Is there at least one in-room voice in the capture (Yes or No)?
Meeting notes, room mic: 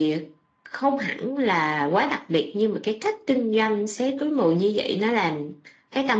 No